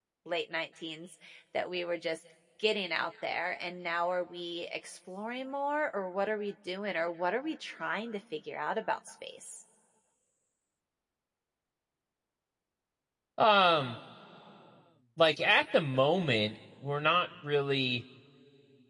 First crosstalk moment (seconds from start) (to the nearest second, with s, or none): none